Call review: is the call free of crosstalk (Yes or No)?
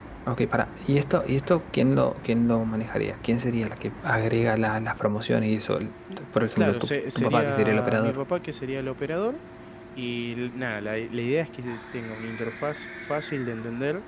No